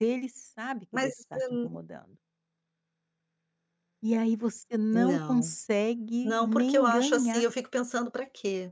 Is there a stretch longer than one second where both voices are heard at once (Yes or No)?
Yes